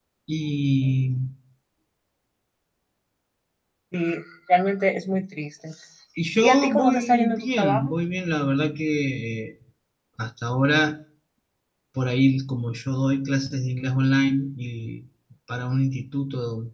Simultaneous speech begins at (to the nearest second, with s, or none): 6 s